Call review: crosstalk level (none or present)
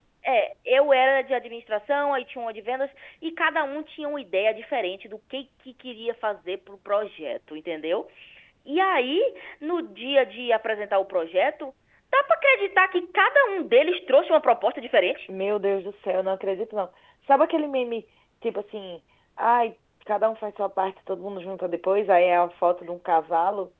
none